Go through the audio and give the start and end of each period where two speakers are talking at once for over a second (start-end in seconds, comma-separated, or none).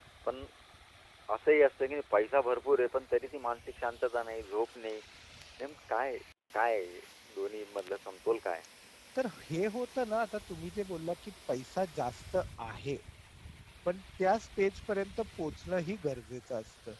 none